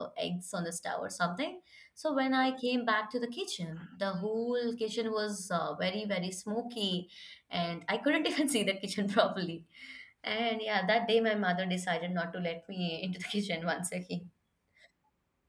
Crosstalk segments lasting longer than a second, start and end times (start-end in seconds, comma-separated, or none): none